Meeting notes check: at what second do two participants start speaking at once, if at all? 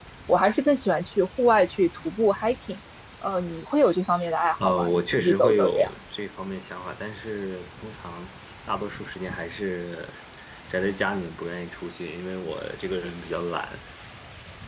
4.6 s

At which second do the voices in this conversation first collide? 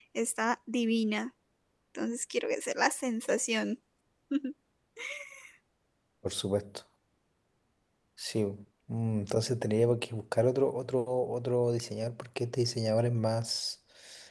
none

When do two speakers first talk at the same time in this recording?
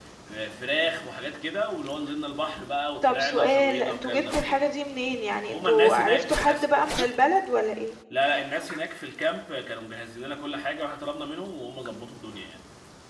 3.0 s

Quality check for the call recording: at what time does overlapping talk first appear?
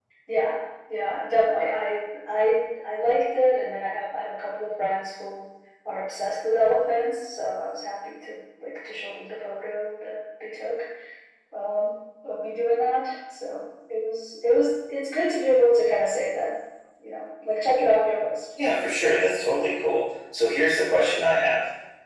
none

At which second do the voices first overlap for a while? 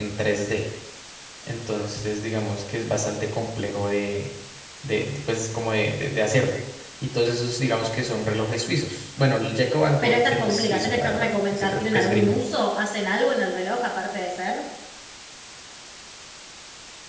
10.0 s

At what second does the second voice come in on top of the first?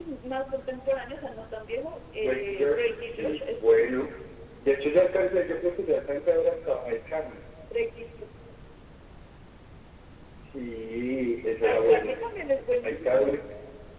2.2 s

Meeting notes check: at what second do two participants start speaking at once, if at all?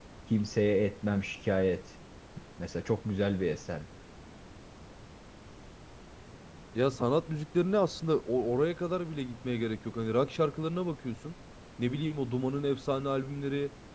none

